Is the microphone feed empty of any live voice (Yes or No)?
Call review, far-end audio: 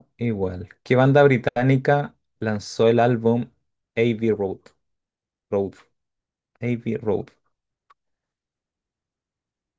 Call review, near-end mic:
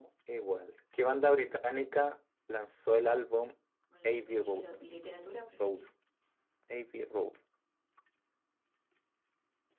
No